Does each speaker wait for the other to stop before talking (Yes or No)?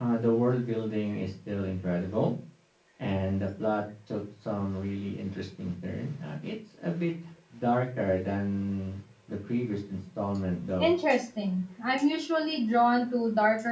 Yes